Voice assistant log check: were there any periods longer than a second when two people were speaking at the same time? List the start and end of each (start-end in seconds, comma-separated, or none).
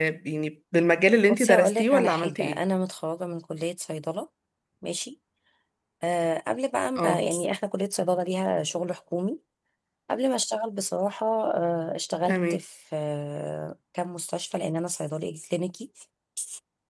1.3-2.6